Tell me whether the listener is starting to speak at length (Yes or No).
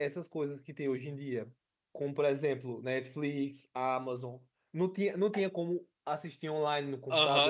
Yes